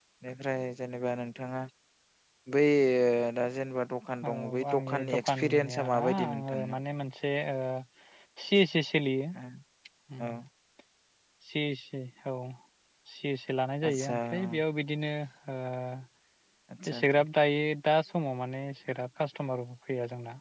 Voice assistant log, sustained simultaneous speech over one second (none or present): present